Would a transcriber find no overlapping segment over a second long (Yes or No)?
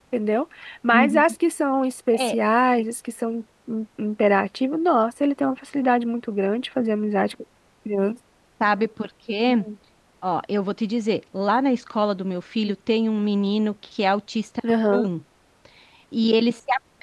Yes